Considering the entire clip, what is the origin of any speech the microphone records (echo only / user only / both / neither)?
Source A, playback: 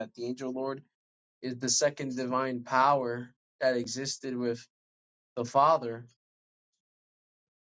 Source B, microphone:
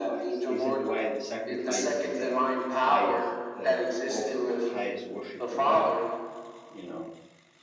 both